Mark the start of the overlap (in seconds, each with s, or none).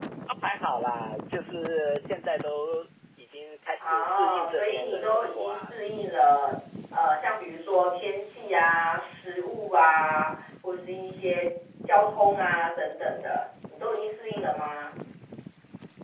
3.8 s